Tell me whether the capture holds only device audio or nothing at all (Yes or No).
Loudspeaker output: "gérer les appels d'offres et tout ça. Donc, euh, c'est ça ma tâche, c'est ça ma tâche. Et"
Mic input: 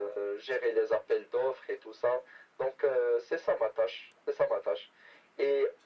Yes